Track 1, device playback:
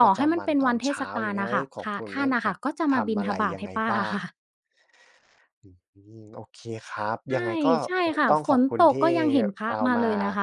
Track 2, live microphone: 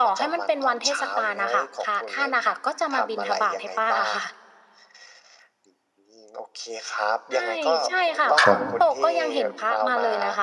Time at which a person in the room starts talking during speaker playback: 8.4 s

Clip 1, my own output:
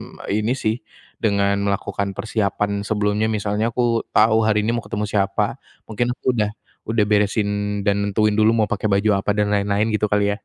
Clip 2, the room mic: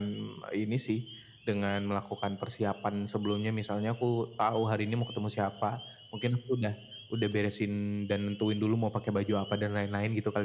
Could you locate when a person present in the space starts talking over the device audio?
none

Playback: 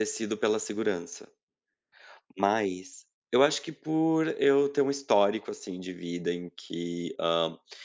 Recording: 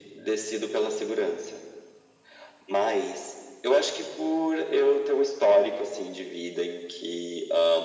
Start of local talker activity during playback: none

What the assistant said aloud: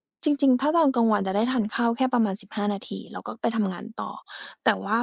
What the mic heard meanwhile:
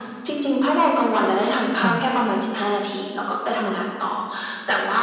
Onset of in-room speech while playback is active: 1.8 s

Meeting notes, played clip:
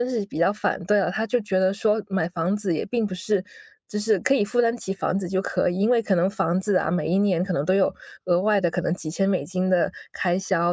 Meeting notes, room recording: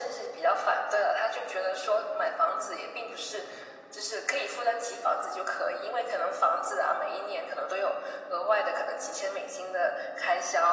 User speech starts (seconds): none

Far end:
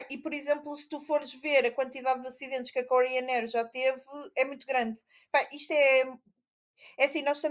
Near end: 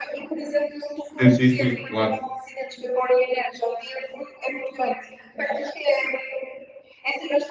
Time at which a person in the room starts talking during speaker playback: 1.2 s

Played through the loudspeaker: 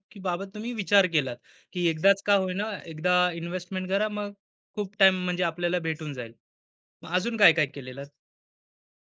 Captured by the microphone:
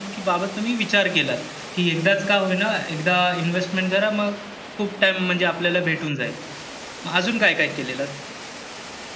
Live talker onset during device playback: none

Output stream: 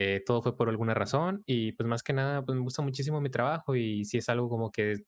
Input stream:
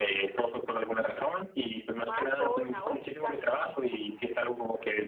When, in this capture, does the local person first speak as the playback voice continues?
1.9 s

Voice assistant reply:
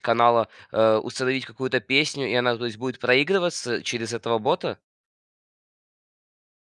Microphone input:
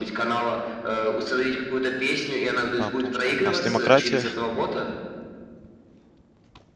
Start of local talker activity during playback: 2.8 s

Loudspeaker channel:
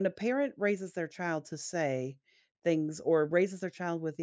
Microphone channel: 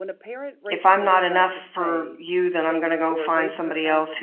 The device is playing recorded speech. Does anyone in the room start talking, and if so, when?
0.7 s

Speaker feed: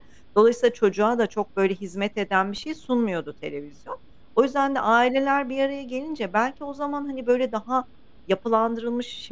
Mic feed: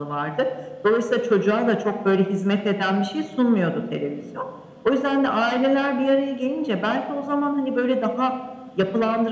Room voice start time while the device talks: none

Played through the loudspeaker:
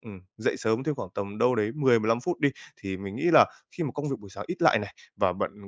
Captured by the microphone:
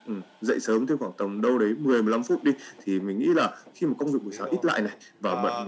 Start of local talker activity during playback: 4.1 s

